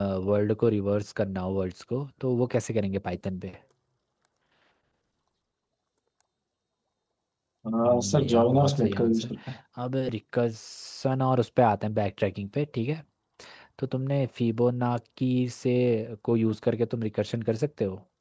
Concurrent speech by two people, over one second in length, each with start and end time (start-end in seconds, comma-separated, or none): 7.8-9.3